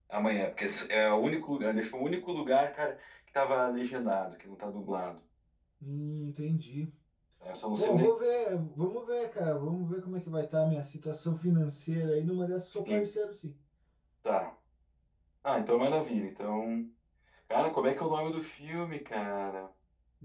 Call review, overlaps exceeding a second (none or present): none